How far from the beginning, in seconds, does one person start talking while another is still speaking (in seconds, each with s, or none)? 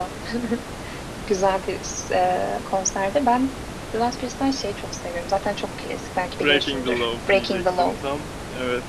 6.4 s